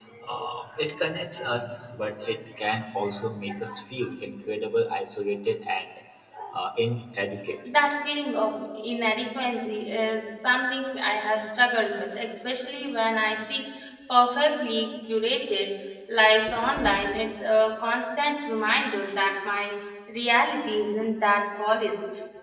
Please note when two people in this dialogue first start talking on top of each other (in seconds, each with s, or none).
none